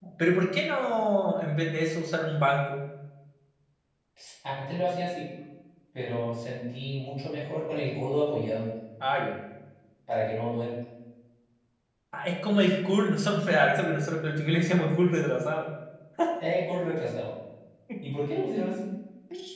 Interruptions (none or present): none